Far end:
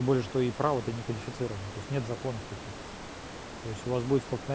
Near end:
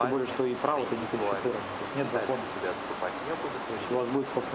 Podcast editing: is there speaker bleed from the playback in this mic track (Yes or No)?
Yes